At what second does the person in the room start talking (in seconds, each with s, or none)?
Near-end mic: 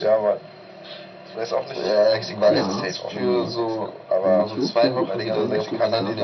2.4 s